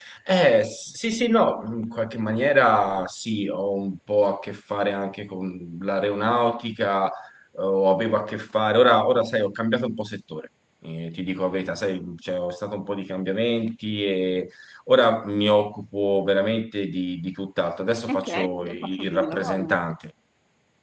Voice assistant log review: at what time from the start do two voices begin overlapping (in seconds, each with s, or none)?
18.1 s